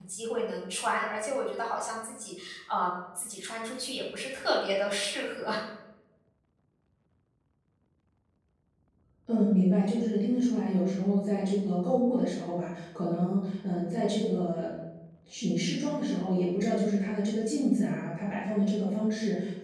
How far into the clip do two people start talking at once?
none

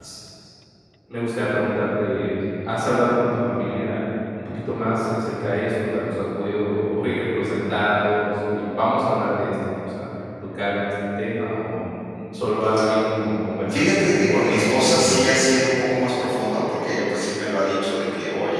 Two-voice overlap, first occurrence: 13.7 s

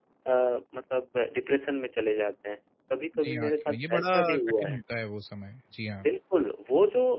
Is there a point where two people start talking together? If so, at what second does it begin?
3.2 s

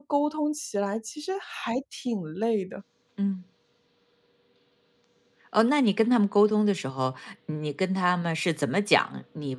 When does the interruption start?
none

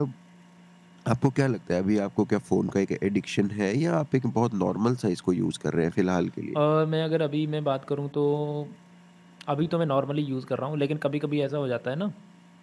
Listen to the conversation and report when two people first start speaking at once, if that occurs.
none

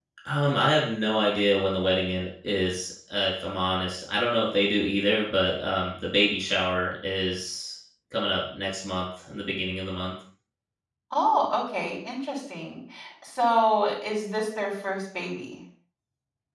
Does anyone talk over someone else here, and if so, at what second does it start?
none

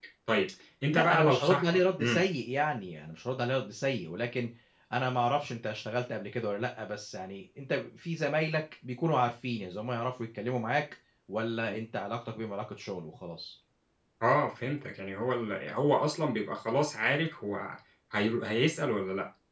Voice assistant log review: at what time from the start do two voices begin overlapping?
0.9 s

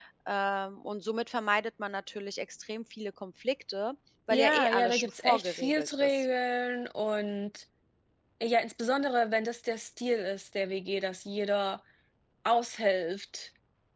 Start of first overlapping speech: 4.3 s

